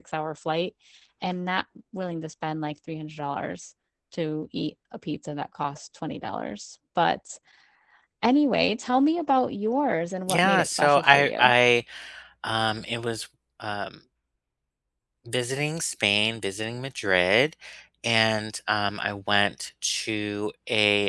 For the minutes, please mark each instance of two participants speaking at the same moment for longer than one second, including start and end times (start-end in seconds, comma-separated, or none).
10.3-11.5